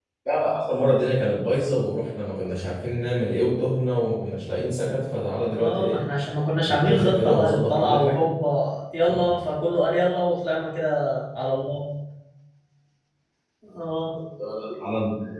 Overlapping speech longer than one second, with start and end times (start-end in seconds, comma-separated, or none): 6.7-8.2